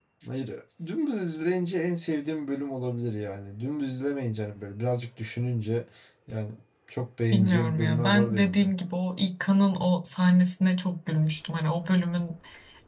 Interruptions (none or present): present